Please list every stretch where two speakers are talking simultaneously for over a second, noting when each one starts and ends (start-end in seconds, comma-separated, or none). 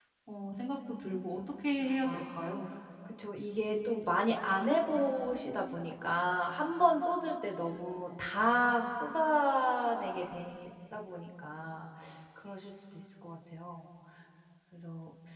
none